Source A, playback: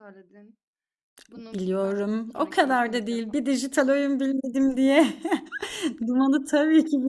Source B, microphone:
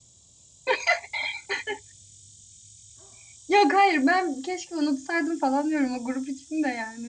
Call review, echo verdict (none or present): none